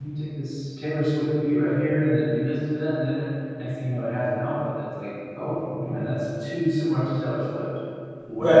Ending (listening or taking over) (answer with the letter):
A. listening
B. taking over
B